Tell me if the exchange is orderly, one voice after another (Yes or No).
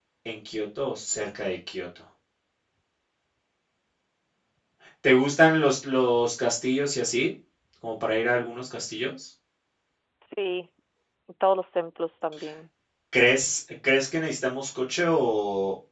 Yes